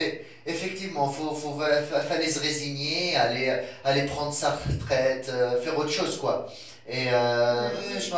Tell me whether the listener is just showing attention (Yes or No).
Yes